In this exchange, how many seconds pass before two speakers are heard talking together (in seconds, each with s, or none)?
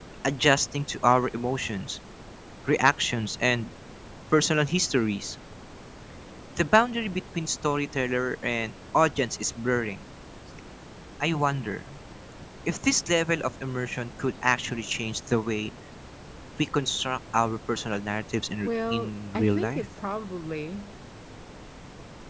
18.6 s